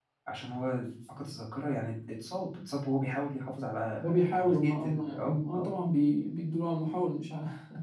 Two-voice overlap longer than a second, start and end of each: 4.0-5.7

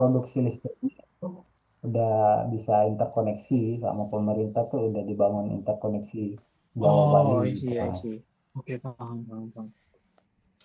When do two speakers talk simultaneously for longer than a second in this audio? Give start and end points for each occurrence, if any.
6.8-8.0

